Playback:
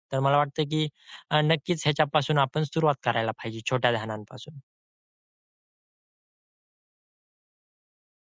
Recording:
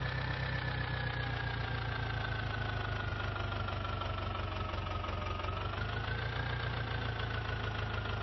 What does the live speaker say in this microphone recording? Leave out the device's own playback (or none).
none